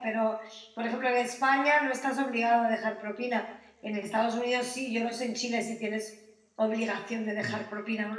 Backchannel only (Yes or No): No